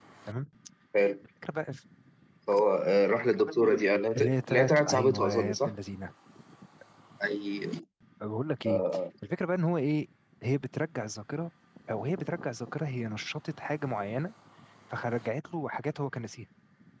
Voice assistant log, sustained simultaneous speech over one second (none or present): present